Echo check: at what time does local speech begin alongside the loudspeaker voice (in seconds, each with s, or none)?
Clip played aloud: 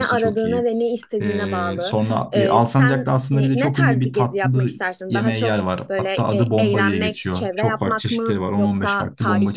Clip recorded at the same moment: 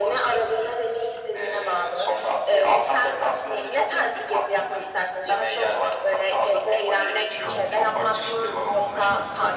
none